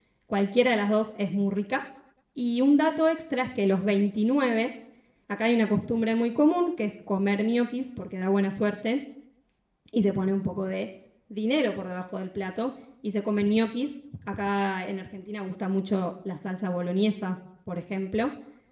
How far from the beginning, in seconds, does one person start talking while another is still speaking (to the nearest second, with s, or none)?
none